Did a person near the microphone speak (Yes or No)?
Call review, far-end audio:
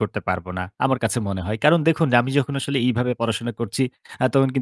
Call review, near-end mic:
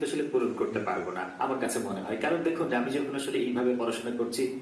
Yes